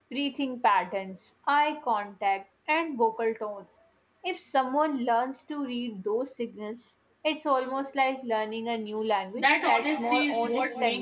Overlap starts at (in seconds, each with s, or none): 9.3 s